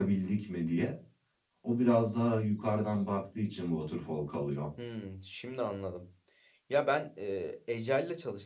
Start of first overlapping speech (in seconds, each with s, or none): none